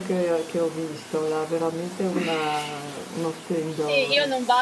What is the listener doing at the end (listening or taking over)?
taking over